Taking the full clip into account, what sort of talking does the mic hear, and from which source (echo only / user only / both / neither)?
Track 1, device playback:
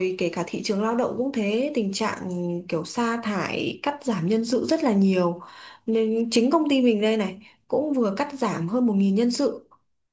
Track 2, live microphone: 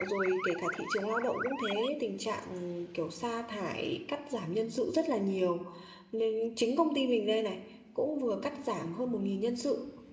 echo only